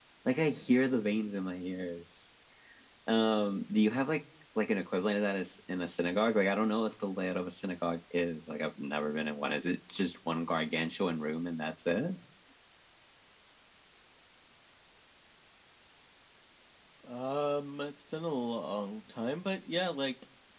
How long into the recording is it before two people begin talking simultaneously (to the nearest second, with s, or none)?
none